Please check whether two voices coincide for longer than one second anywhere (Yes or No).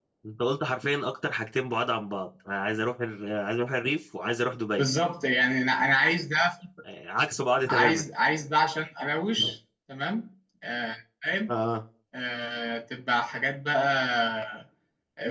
No